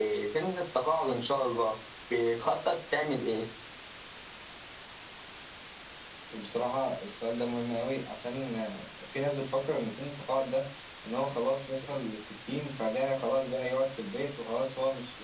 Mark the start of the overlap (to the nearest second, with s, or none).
none